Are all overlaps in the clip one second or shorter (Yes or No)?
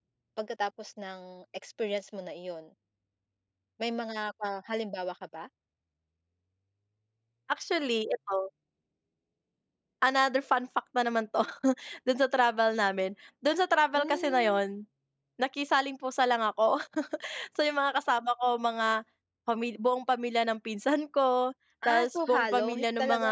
No